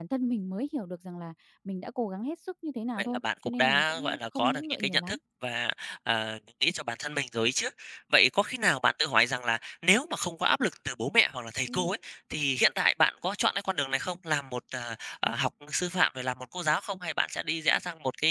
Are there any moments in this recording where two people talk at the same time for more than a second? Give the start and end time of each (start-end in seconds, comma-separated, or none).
3.0-5.2